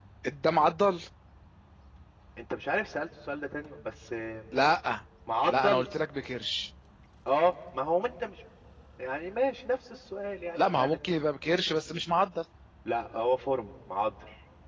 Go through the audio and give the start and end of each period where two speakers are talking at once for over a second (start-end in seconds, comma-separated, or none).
none